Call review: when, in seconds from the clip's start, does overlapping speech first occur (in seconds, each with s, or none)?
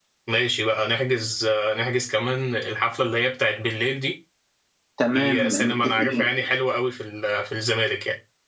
5.1 s